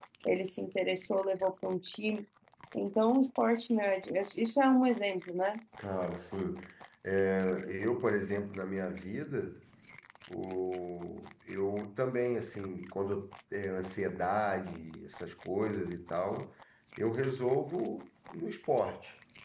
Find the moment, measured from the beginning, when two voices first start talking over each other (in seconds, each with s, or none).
none